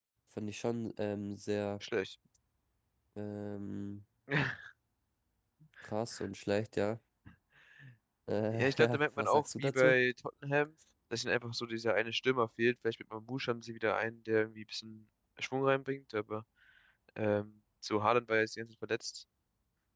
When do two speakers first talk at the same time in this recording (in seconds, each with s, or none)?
8.5 s